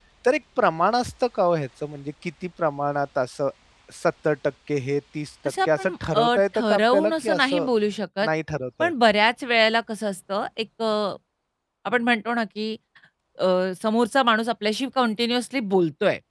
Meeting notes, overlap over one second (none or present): present